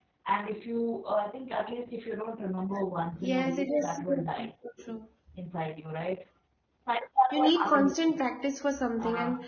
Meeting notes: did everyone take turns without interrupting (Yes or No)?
No